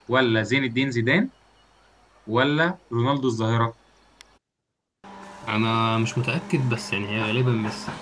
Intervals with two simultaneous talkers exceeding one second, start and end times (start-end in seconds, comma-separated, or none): none